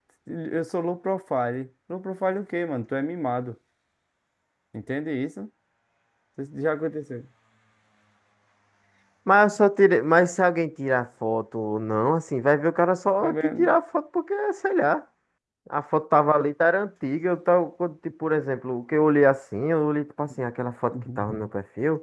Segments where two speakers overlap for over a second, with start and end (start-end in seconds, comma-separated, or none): none